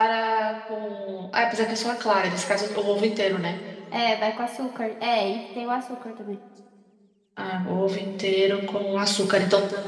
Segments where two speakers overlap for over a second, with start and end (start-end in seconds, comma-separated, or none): none